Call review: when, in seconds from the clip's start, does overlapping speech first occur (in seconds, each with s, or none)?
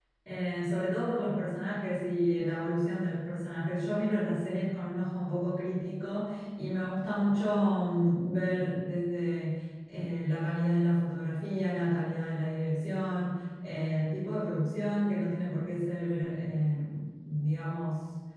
none